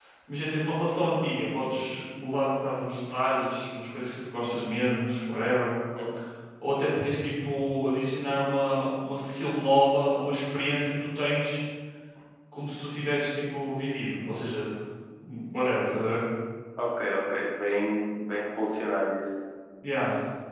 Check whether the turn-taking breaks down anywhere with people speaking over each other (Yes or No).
No